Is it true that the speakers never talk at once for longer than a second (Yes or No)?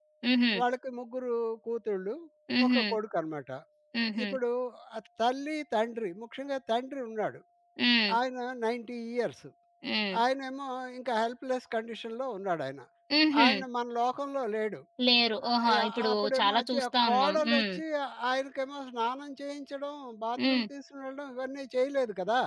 No